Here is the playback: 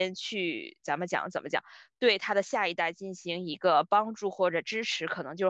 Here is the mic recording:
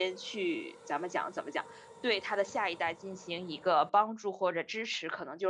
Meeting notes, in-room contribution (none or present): none